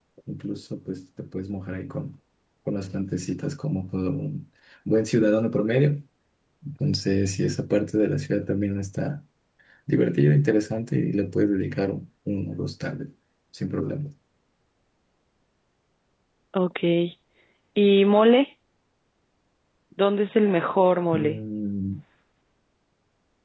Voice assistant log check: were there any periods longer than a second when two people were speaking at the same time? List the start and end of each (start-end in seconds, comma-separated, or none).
none